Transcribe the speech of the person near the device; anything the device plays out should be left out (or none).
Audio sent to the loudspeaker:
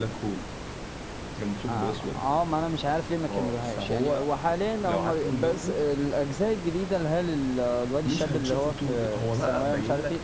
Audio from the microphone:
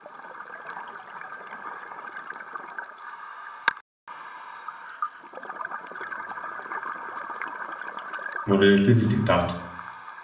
والريلاتيفيتي بتاعته